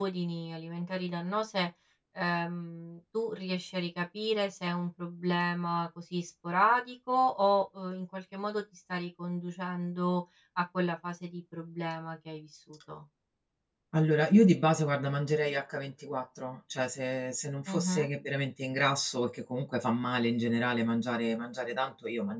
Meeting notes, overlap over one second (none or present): none